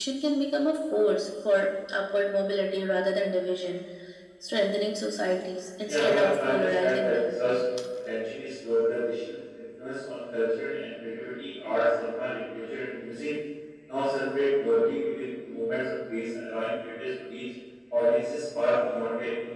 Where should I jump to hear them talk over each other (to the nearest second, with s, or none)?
6 s